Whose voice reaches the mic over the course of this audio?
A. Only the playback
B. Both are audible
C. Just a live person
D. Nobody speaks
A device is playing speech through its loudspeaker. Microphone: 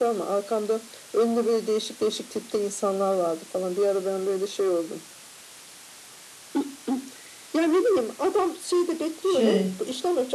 B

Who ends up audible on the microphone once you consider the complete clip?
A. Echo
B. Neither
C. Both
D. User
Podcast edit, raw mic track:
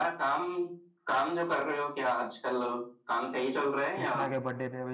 C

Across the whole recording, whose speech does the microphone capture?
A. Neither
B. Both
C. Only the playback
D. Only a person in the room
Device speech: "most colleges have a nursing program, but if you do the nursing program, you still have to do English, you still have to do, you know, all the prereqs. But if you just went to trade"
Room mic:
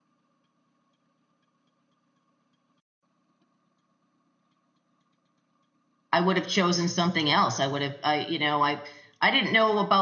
D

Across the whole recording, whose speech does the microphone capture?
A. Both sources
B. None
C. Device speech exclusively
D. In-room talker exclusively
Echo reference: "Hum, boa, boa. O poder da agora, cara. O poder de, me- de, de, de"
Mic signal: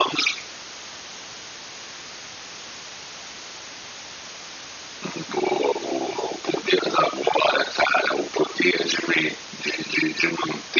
C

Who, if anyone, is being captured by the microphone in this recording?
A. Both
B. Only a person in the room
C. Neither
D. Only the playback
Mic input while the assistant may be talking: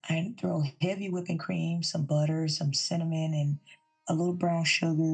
D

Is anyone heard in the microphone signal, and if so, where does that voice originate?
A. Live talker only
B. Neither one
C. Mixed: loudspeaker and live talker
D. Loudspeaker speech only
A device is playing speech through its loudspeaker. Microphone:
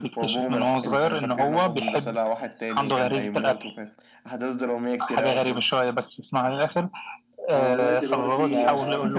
C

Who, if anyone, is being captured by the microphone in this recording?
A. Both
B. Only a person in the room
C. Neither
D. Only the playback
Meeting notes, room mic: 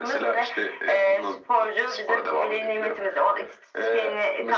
D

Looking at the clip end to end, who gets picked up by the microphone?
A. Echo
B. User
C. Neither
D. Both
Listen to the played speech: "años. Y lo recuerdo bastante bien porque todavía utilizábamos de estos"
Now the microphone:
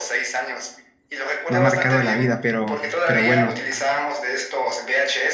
D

